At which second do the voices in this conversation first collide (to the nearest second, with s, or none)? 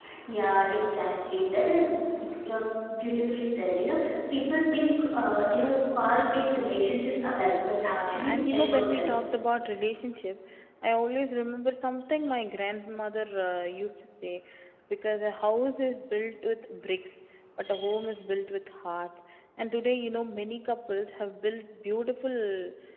8 s